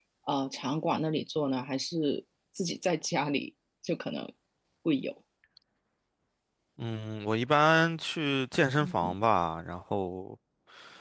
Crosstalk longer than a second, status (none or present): none